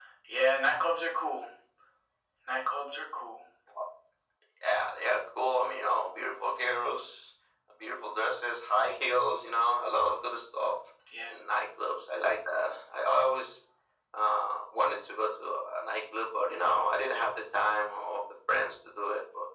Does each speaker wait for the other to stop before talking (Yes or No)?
Yes